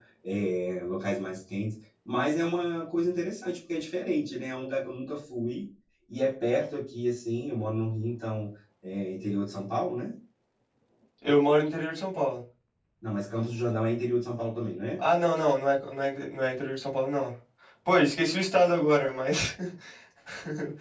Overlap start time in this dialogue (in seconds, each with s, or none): none